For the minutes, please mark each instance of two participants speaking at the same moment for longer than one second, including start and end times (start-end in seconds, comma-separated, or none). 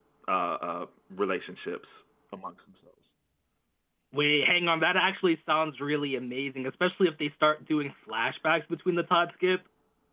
none